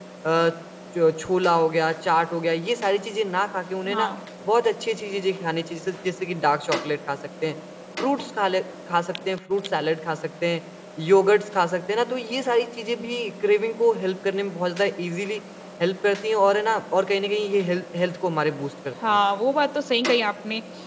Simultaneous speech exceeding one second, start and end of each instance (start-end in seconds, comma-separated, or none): none